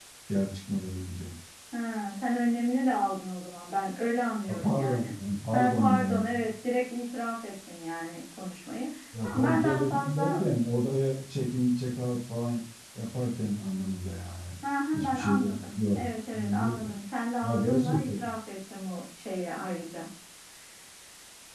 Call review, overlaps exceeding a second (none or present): present